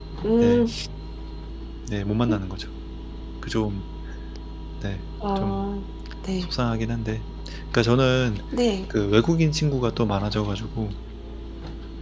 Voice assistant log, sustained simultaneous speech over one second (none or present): none